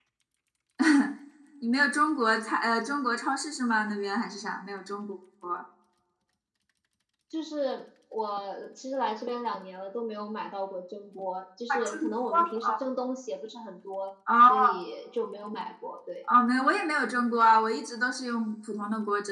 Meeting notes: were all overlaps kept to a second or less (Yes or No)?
Yes